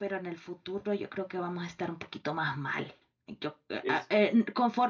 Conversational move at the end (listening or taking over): listening